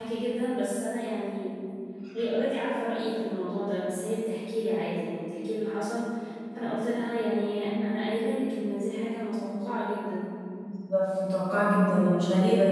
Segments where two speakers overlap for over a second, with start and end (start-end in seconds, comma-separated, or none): none